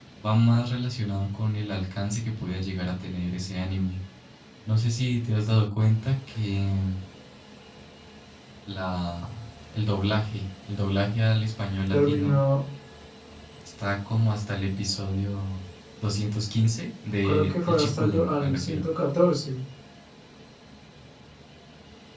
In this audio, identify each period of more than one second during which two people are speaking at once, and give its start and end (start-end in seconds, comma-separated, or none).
17.2-18.9